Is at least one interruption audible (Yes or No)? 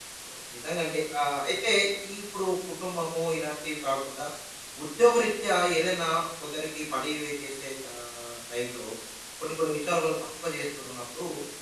No